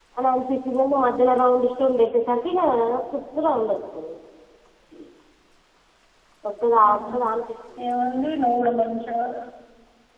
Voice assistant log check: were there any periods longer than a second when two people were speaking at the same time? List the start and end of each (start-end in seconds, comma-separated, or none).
none